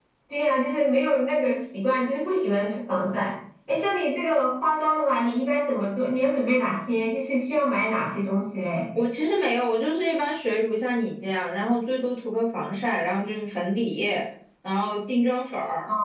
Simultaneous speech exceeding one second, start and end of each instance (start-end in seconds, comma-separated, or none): none